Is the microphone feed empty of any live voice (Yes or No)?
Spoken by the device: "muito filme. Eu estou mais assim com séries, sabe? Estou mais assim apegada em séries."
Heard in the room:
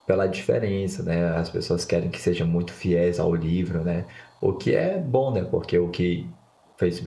No